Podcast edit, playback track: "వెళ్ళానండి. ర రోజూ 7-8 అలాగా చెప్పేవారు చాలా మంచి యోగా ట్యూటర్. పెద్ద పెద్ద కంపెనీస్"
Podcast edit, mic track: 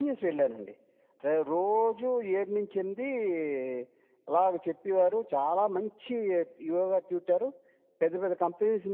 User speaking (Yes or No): No